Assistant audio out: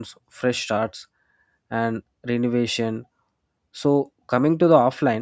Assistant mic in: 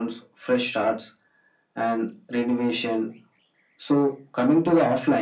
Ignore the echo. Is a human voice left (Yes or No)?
No